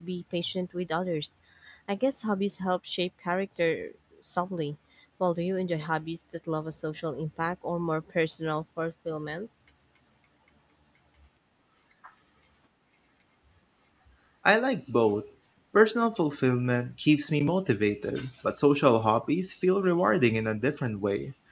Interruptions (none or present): none